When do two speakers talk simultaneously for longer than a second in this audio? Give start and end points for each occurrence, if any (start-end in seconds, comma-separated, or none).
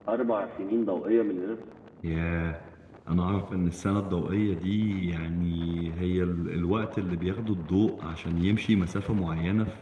none